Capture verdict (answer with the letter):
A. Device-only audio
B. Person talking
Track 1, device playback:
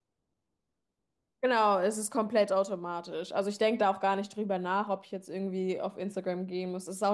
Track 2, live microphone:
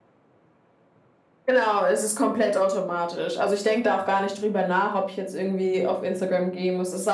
A